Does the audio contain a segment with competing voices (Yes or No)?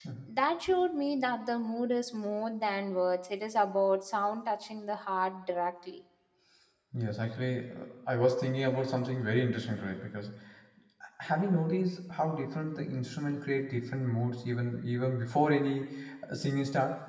No